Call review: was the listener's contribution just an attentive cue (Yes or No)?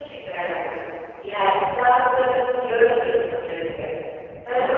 Yes